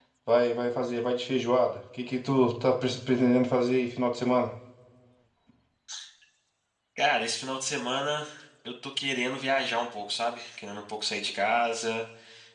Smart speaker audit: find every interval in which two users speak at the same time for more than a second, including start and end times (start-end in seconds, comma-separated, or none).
none